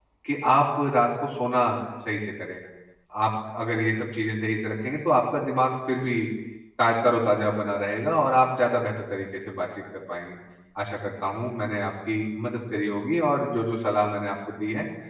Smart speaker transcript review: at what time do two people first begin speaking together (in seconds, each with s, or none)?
none